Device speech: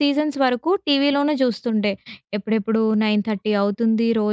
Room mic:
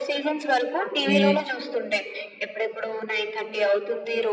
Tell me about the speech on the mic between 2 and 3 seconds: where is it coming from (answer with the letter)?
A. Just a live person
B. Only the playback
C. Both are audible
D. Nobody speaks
B